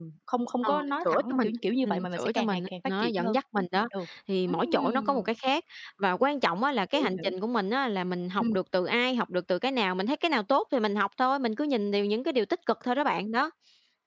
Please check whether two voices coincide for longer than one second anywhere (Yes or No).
Yes